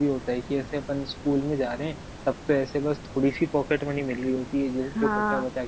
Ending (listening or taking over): listening